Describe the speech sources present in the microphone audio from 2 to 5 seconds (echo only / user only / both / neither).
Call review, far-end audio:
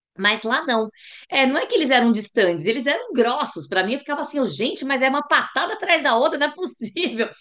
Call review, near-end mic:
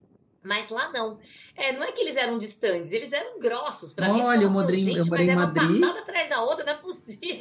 both